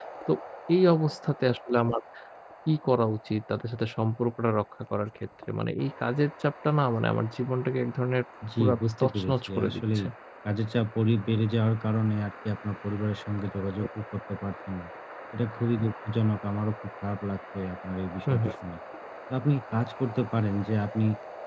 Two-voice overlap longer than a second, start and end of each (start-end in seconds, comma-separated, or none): 8.6-10.0